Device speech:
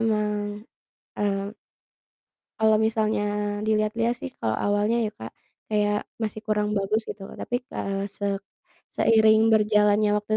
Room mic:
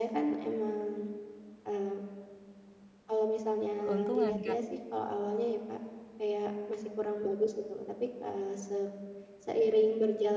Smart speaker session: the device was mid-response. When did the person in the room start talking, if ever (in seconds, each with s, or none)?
3.8 s